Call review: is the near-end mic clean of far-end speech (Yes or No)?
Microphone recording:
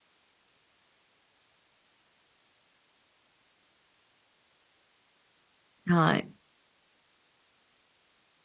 Yes